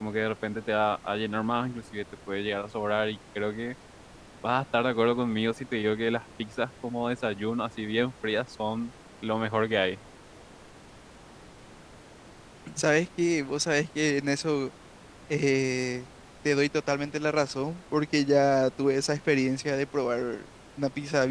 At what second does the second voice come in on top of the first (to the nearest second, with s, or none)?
none